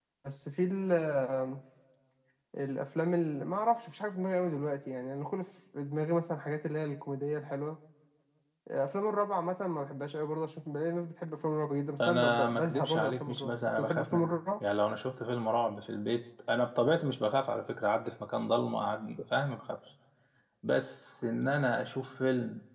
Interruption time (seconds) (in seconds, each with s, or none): 12.0 s